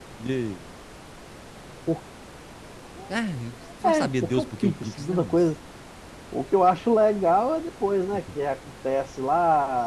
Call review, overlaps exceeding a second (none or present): present